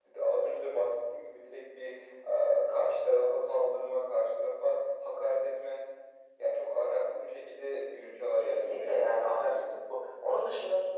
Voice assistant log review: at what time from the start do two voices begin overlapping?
8.4 s

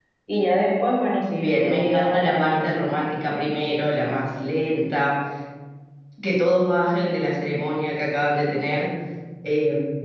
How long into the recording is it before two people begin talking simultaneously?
1.4 s

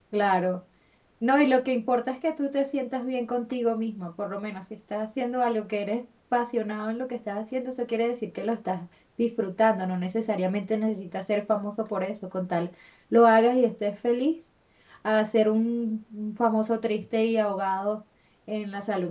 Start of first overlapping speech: none

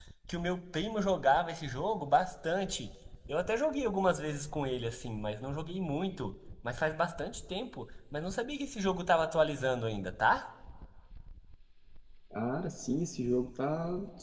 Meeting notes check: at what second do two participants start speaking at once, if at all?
none

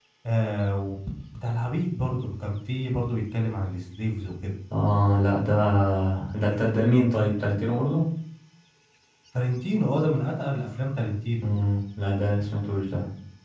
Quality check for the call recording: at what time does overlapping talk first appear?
none

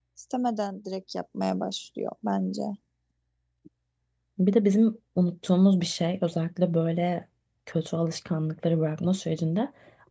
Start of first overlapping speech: none

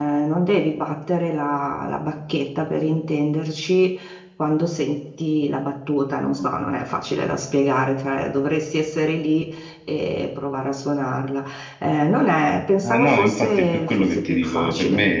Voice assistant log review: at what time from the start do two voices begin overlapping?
12.8 s

